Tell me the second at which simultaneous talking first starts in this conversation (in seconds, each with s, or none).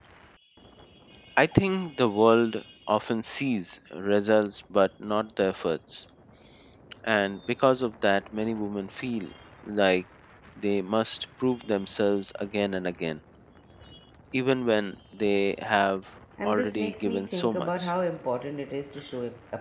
16.4 s